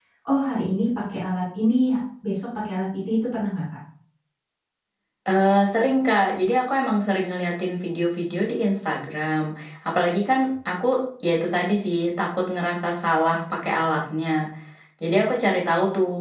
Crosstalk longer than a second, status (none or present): none